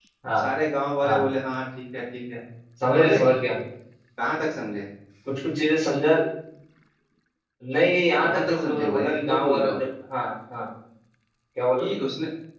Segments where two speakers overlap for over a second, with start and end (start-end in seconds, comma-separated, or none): 8.2-9.8